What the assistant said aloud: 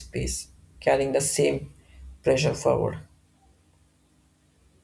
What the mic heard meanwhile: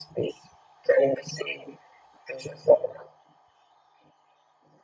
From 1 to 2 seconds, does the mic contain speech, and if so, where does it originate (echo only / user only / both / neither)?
echo only